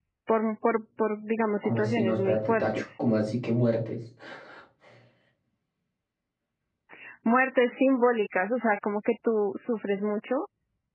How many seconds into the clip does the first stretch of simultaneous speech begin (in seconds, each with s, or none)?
1.6 s